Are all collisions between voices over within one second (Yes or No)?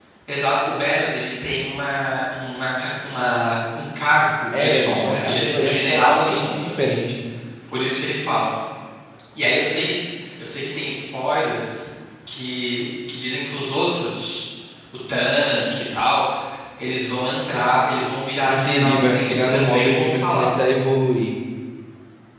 No